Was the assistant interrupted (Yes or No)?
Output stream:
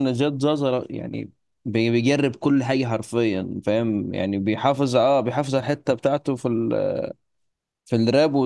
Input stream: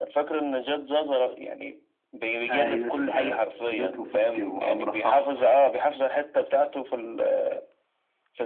Yes